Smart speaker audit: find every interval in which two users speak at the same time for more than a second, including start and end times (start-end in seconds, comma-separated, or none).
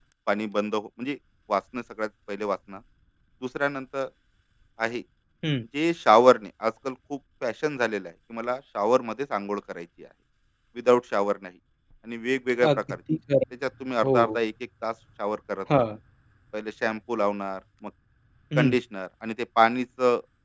none